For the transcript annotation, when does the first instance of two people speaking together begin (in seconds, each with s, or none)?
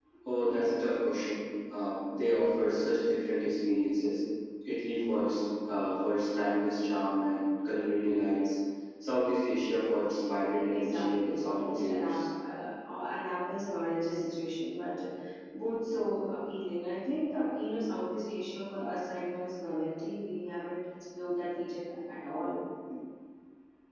10.7 s